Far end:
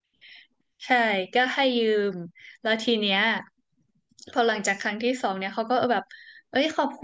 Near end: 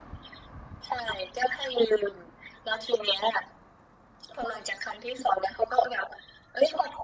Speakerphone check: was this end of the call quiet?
Yes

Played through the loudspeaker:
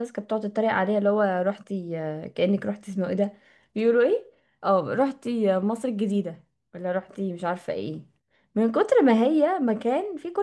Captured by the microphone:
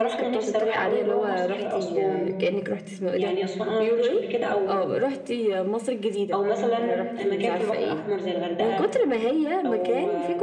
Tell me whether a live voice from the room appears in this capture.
Yes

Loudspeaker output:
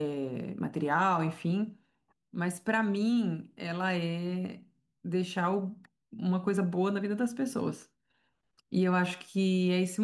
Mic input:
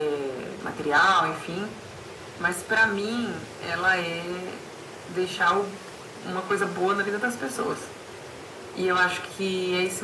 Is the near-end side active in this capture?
No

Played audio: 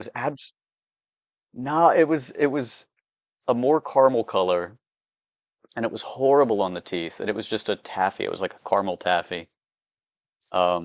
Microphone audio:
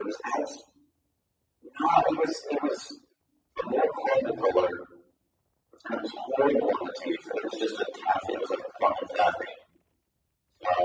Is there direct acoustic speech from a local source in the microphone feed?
No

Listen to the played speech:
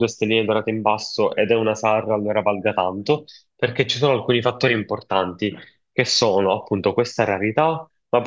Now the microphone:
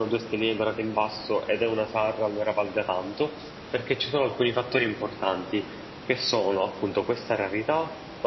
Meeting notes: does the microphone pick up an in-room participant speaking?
No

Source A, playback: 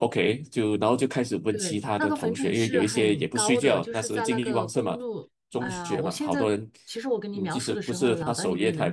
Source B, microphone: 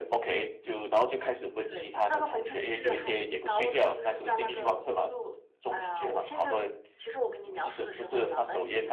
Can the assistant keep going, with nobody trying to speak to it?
Yes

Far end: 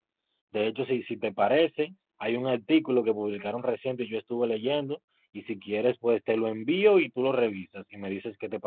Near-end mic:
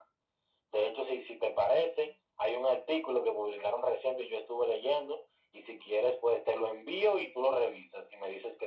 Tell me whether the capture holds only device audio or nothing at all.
Yes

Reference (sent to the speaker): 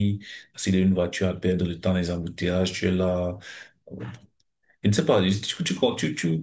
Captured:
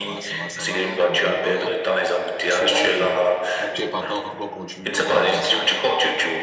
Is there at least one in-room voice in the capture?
Yes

